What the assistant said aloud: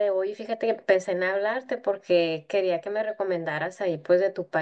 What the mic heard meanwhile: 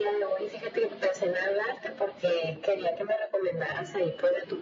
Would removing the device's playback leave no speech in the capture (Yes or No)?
Yes